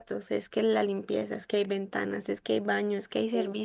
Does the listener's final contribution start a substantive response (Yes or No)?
No